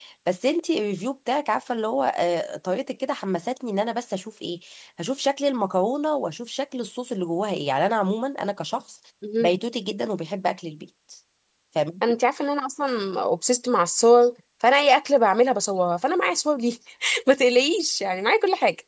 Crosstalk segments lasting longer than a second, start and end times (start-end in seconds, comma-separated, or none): none